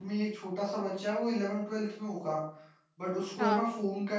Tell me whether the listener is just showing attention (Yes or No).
Yes